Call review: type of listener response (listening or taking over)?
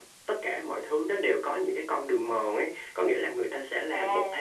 listening